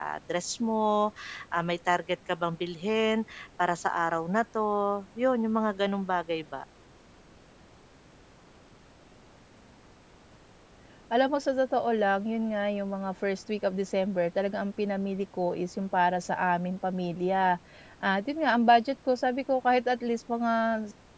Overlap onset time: none

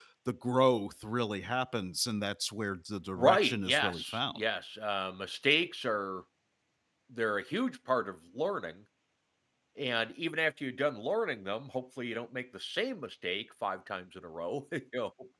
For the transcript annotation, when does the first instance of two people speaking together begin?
3.2 s

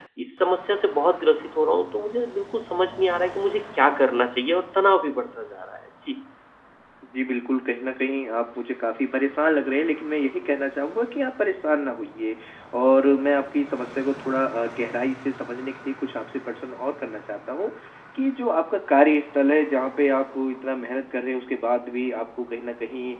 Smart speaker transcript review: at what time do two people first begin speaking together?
none

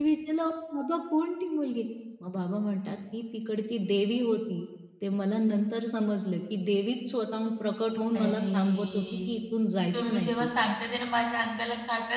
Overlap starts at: 8.1 s

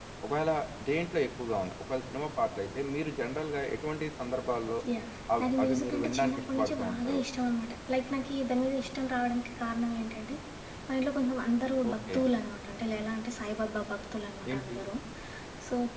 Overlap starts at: 5.4 s

